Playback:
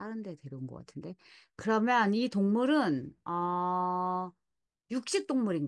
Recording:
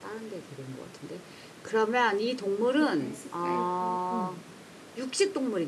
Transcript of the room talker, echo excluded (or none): 또 뭐가 있을까요? 응,